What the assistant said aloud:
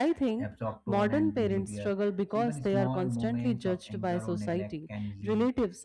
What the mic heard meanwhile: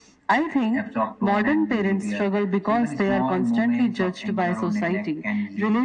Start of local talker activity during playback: none

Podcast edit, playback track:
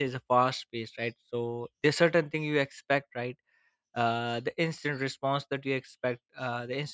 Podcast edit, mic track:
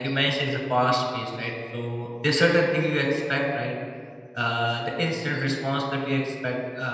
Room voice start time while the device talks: none

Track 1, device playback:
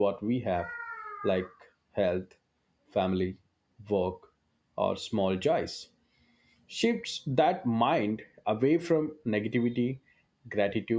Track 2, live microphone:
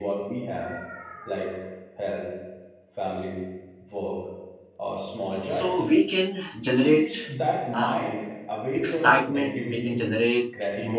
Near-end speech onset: 5.5 s

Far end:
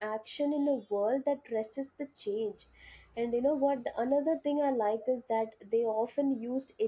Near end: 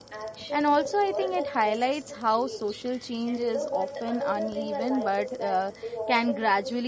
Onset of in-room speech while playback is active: 0.5 s

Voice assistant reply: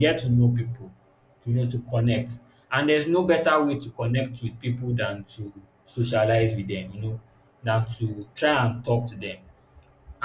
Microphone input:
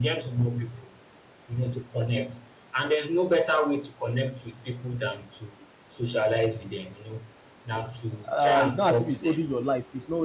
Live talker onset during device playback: 8.2 s

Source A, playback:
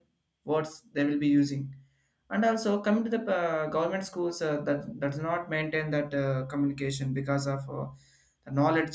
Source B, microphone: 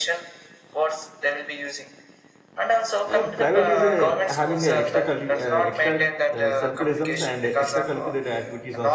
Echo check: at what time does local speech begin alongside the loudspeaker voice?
3.1 s

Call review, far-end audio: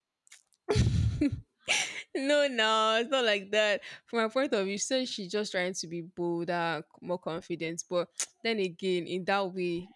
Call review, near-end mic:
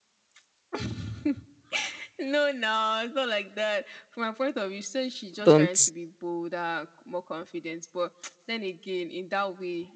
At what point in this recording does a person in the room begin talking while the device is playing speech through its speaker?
5.4 s

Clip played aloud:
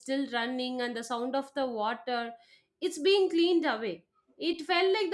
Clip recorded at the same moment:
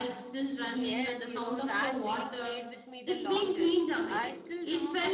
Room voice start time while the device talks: 0.7 s

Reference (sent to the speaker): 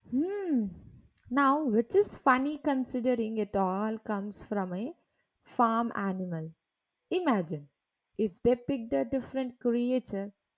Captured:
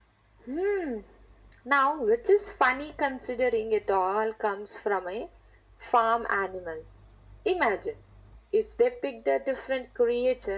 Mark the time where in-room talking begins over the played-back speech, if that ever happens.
none

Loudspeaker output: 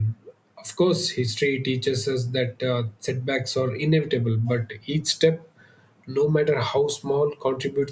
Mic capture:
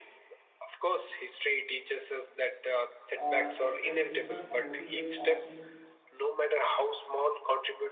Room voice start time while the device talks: 3.1 s

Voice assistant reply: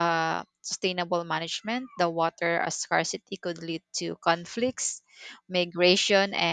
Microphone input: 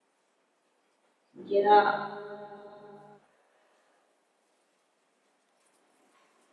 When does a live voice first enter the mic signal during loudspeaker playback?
1.5 s

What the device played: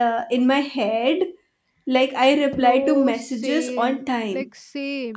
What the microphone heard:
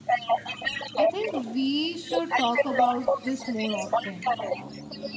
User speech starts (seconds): 1.0 s

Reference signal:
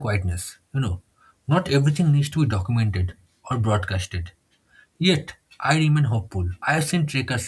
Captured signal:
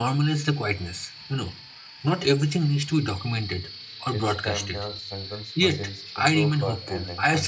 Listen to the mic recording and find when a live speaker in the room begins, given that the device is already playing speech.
4.1 s

